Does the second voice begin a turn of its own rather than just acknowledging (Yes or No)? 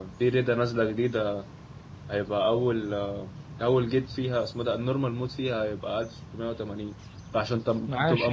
No